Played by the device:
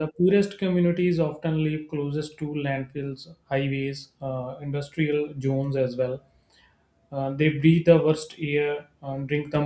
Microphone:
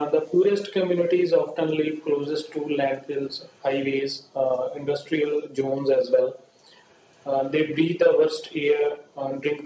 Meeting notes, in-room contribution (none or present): none